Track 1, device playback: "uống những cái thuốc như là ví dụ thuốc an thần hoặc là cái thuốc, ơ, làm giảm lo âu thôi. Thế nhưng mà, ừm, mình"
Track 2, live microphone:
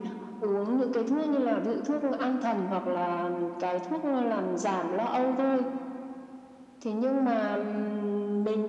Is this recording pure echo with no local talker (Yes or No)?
Yes